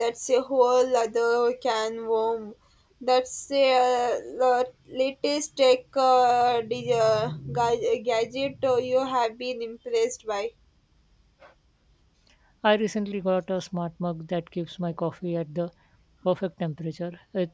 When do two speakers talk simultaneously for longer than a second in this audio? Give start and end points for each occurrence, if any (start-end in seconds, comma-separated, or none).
none